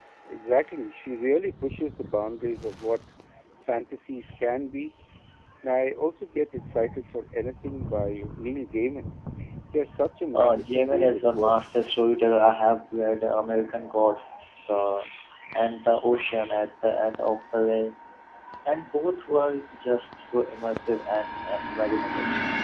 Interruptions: present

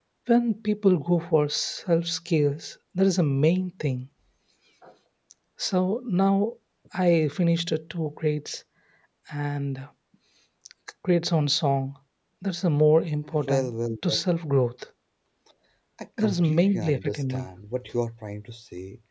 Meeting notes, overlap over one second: present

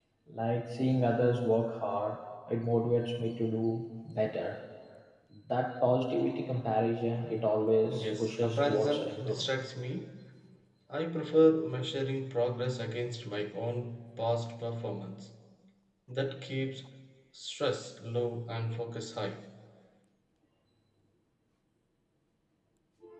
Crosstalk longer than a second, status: present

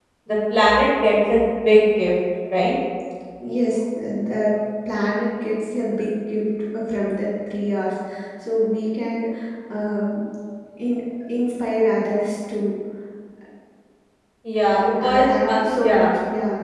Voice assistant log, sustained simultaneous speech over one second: present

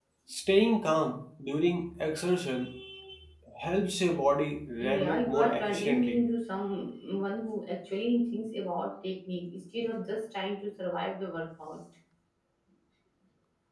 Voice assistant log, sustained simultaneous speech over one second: present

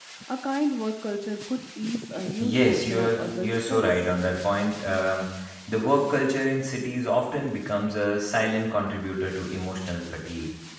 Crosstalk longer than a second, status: present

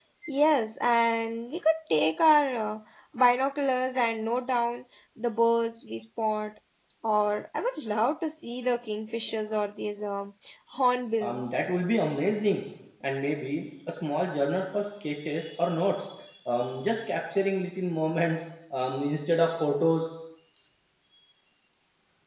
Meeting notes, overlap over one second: none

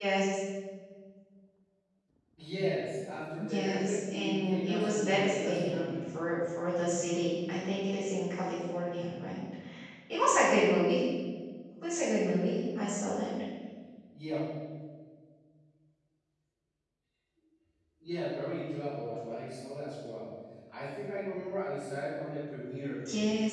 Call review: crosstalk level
present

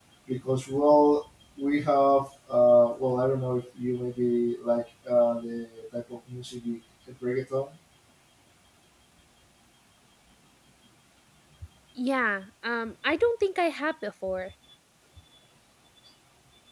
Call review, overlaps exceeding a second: none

